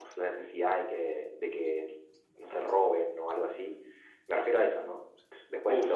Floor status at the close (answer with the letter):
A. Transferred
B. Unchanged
A